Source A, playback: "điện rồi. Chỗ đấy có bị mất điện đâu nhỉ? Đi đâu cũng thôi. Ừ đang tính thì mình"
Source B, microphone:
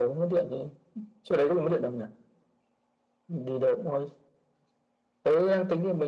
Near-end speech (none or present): none